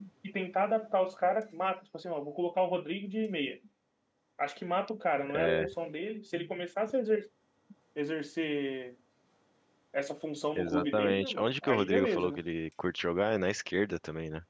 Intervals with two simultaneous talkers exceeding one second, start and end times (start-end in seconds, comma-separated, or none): 10.6-12.4